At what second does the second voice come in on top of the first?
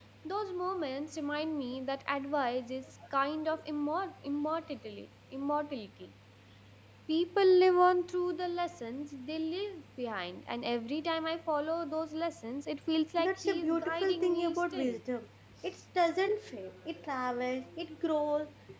13.2 s

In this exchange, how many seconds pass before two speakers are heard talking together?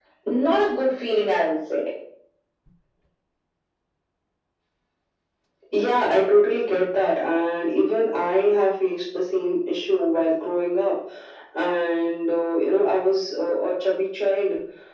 none

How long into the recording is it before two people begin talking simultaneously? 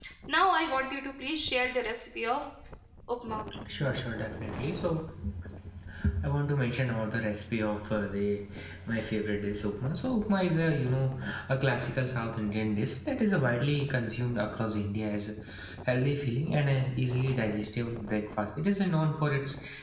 none

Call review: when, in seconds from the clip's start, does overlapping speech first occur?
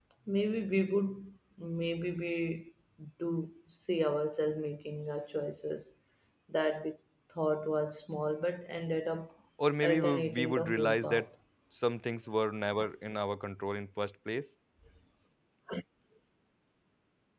9.8 s

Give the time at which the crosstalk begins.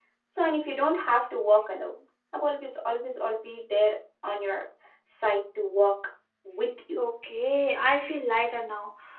none

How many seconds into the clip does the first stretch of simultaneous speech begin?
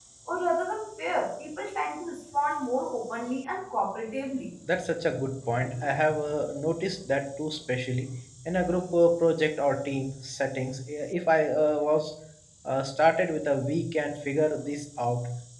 none

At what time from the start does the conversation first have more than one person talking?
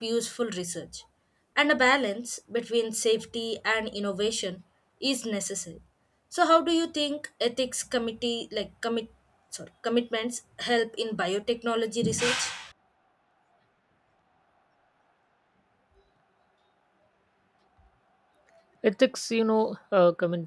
none

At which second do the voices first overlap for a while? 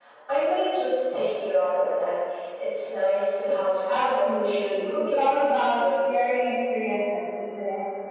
3.9 s

